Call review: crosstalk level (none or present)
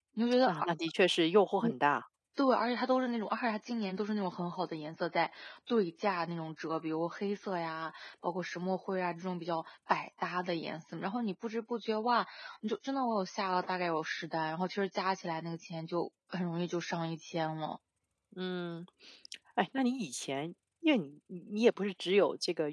none